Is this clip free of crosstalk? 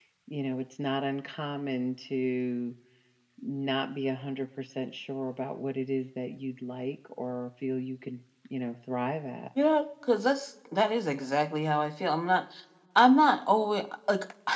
Yes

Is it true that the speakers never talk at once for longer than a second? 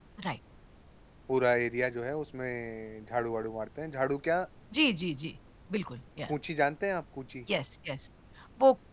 Yes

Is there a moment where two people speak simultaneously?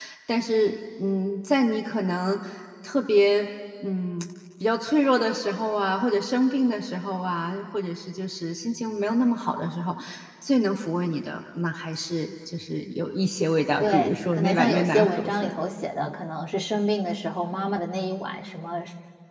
Yes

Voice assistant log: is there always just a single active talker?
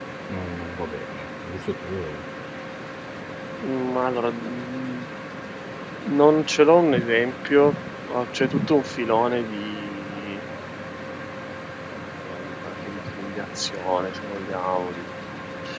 Yes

